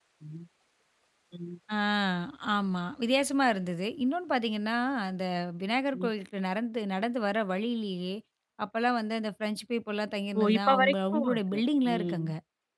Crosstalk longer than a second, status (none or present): present